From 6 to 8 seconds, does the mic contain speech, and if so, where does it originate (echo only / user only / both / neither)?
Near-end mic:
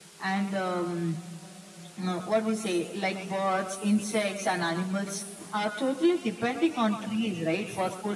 echo only